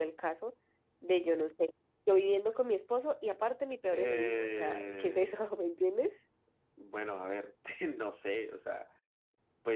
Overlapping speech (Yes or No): Yes